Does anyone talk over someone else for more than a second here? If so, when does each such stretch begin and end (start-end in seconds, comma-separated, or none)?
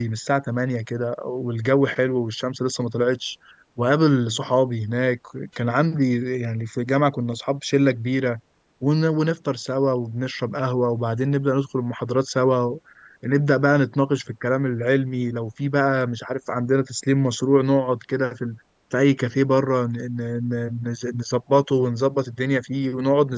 none